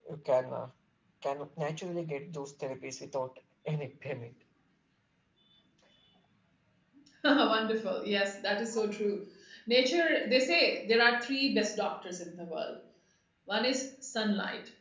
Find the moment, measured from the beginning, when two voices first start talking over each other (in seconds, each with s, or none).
none